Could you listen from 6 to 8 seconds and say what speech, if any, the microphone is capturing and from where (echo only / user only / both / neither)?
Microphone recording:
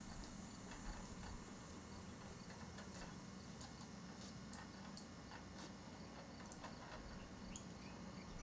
neither